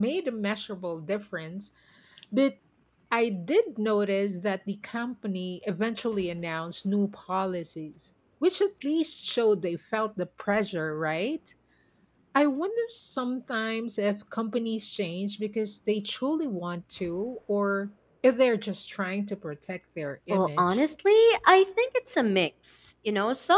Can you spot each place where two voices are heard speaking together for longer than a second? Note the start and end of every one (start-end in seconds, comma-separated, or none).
none